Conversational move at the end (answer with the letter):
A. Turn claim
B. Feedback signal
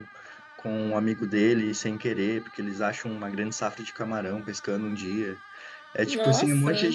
B